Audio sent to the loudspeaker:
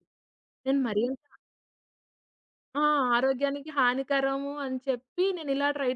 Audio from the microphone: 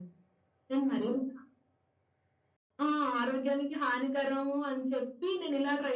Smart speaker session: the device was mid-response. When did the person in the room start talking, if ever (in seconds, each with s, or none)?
none